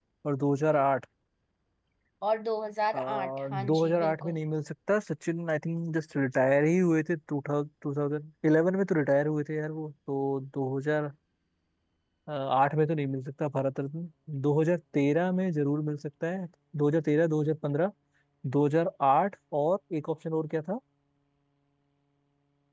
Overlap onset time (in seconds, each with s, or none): 3.0 s